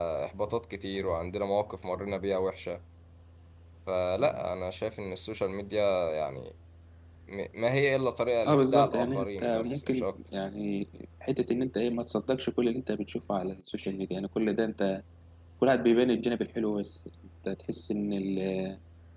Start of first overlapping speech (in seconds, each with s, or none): 8.5 s